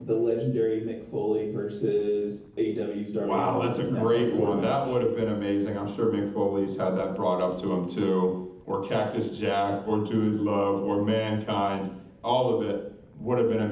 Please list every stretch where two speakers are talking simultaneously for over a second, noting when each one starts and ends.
3.2-5.0

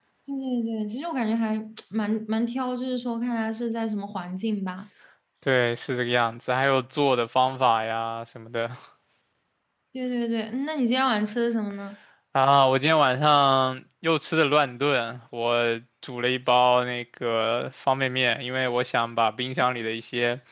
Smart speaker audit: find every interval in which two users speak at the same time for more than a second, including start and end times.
none

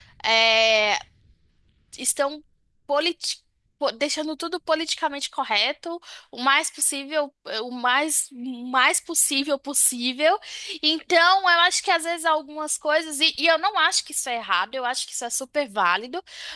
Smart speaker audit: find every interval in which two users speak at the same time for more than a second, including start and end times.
none

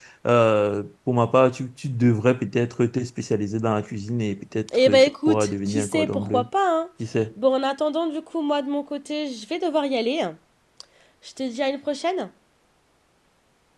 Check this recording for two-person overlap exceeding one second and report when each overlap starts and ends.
4.9-6.5

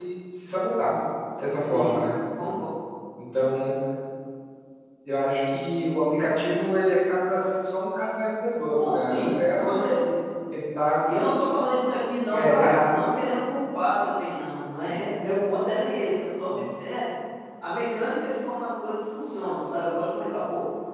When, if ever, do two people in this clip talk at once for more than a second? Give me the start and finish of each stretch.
8.8-10.1

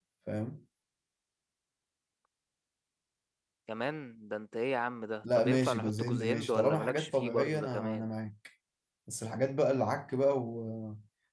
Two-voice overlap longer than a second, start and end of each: 5.4-8.0

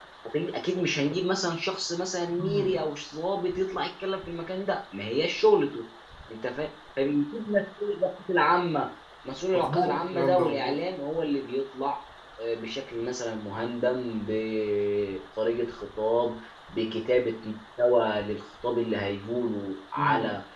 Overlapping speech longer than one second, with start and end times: 9.5-10.9

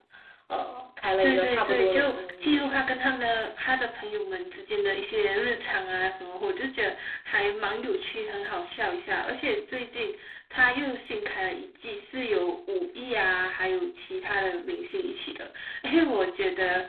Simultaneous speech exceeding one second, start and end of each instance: 1.2-2.9

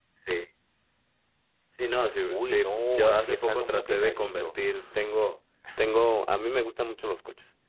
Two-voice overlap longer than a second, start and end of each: 2.3-4.5

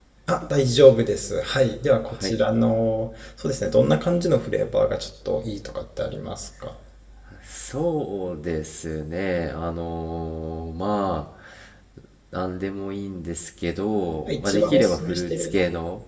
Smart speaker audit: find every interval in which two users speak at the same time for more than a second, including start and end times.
14.3-15.6

